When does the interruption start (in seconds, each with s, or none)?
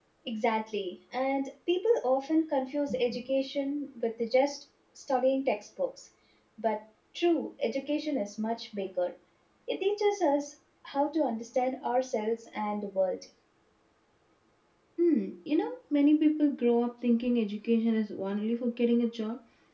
none